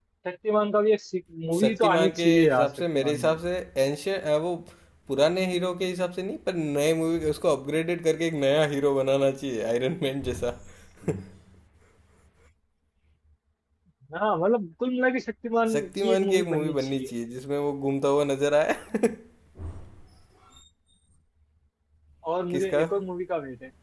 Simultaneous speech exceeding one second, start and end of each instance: 1.6-3.4, 15.7-17.1

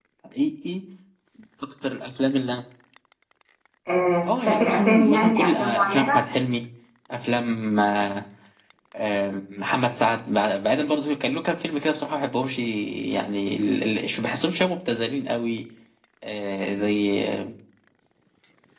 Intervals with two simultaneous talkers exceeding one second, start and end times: 4.4-6.2

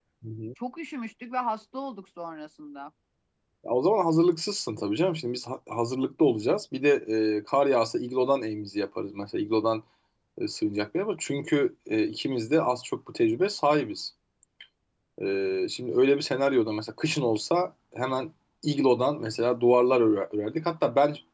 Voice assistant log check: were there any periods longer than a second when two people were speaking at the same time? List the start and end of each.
none

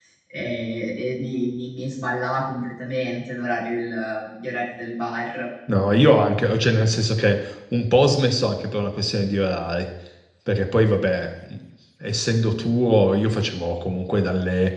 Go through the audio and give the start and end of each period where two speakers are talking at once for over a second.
none

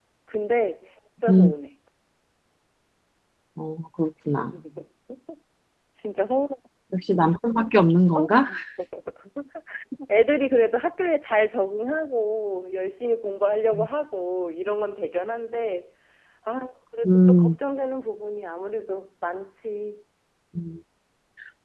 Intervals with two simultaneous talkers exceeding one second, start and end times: none

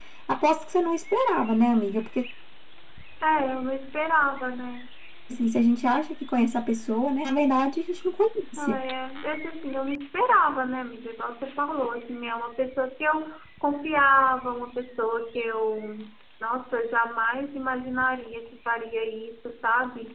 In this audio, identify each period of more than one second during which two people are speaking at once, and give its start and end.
none

